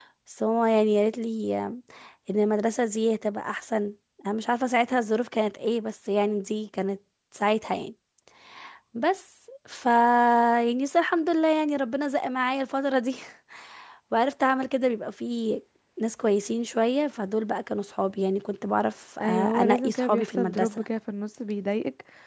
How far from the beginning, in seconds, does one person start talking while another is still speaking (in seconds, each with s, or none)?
19.2 s